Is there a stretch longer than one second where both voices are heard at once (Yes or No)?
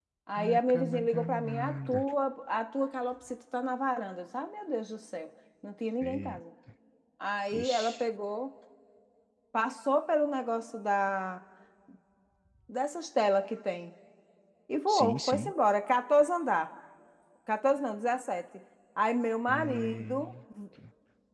Yes